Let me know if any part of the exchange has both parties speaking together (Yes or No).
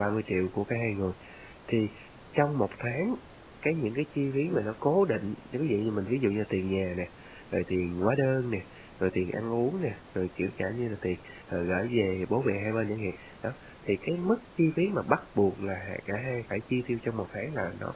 No